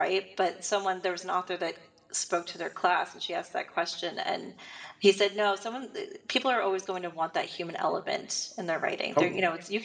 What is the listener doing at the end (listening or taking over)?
listening